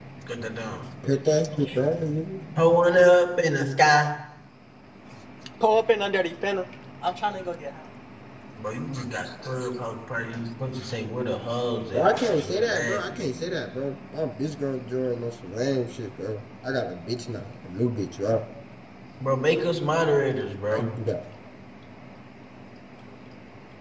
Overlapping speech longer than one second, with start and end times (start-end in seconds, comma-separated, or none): 11.9-13.6